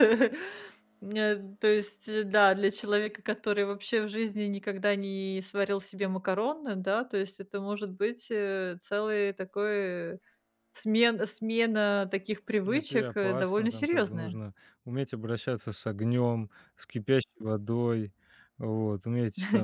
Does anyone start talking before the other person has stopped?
Yes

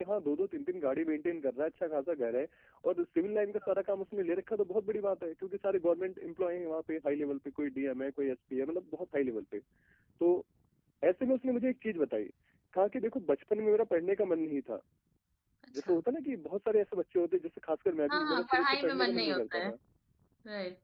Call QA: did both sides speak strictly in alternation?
No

